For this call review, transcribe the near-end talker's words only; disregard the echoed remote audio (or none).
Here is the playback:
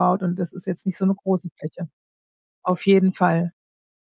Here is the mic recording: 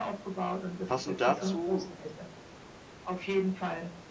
Passend dazu,